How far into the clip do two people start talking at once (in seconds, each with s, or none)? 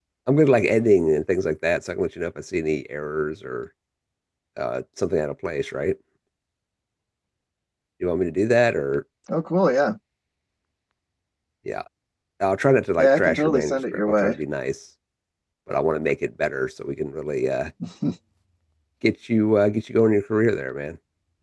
13.0 s